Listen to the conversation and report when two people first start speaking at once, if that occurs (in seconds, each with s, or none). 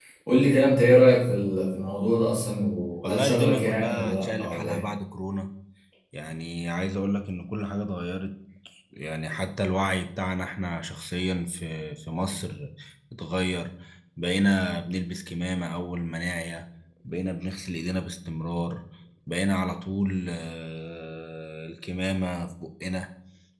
3.0 s